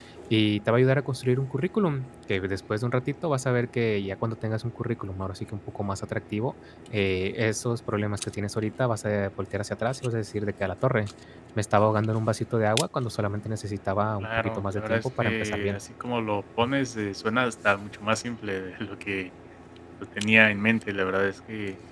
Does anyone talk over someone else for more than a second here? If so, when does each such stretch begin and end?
14.2-15.8

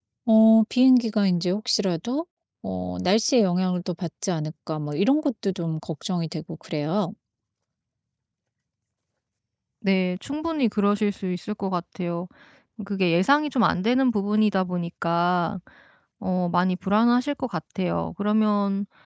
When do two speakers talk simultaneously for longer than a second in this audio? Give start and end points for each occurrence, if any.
none

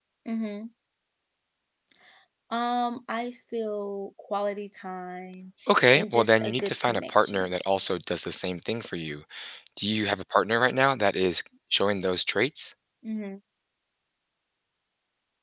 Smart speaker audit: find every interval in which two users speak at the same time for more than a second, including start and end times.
5.9-7.5

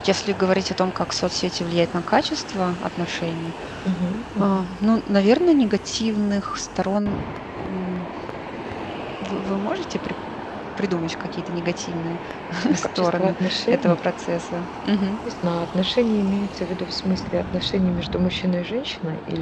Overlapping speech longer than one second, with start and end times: 12.8-14.0

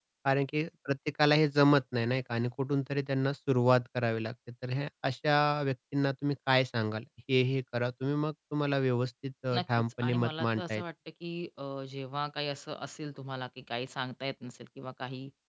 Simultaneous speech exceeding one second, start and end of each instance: 9.6-10.8

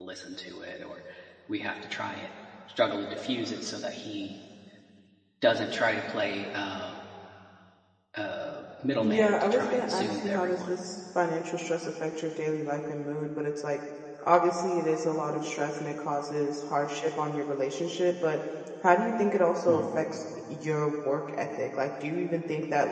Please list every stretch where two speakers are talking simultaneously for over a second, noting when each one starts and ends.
9.0-10.7

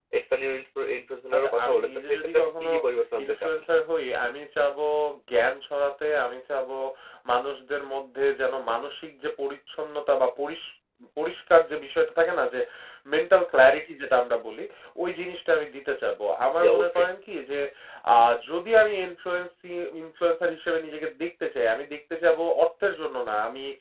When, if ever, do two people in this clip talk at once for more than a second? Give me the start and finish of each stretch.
1.3-2.7

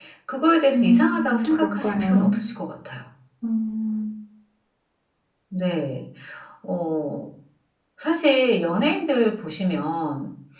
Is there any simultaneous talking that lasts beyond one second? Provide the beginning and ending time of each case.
0.7-2.4

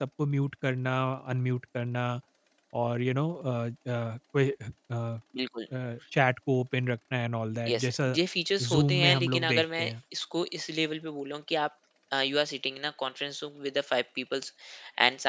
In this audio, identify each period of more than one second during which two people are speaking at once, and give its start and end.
8.7-9.9

